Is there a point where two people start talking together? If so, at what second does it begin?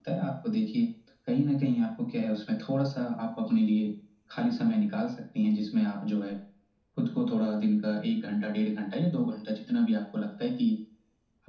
none

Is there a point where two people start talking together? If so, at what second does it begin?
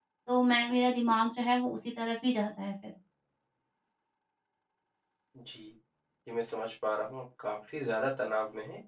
none

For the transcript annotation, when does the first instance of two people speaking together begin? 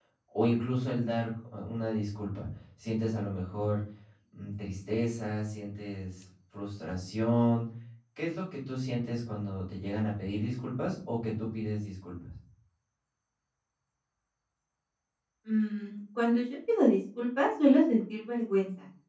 none

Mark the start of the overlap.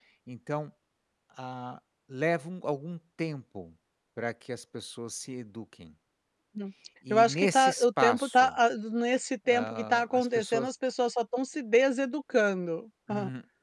7.1 s

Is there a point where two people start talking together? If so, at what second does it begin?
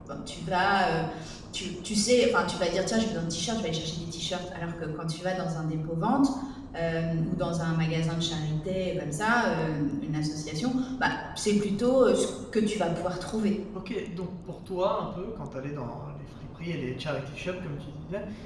none

